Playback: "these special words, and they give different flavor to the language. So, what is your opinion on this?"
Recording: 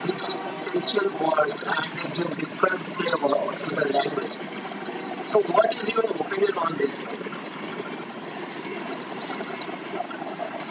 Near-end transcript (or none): none